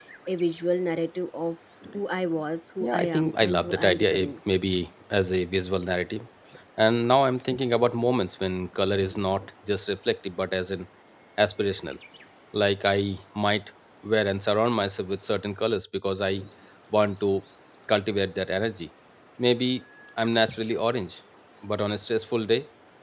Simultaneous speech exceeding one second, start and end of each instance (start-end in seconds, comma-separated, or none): 2.8-4.3